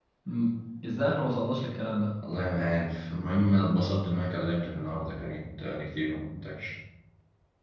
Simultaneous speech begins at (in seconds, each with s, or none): none